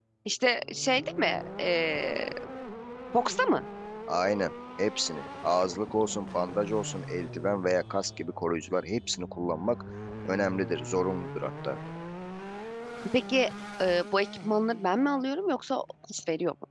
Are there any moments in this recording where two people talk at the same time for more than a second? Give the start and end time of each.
none

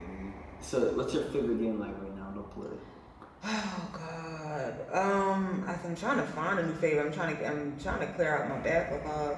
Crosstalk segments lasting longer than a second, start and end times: none

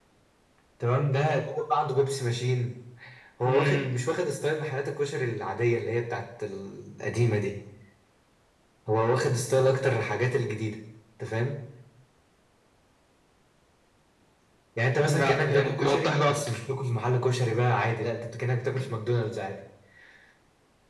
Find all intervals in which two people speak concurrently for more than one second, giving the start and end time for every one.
15.0-16.4

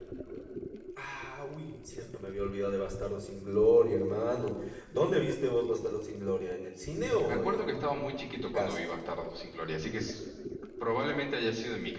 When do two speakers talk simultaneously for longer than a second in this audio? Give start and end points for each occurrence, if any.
7.3-8.8

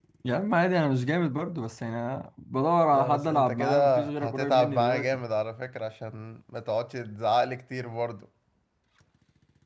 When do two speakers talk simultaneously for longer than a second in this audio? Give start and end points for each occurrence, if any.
2.9-5.2

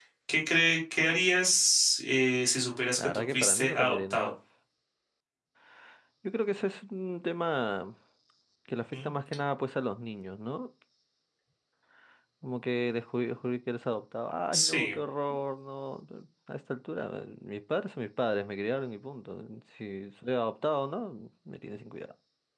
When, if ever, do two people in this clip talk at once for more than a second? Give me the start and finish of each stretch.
3.0-4.3

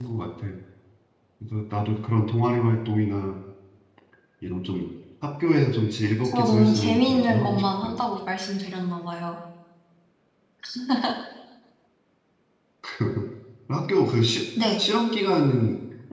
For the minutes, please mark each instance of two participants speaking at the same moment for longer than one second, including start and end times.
6.2-8.0

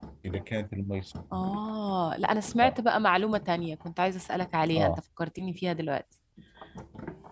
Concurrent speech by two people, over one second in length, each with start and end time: none

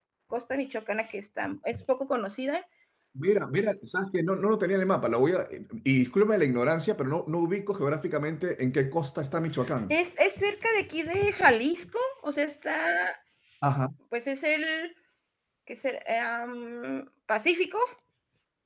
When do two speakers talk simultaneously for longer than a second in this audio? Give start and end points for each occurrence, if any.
none

